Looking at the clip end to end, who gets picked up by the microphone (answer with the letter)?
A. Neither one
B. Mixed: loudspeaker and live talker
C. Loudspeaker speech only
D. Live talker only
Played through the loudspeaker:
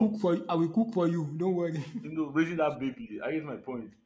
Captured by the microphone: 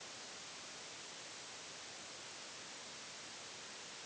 A